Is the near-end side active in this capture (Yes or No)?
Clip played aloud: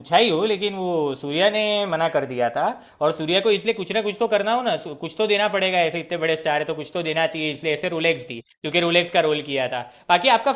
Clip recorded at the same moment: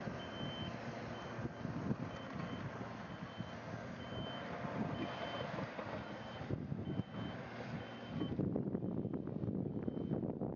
No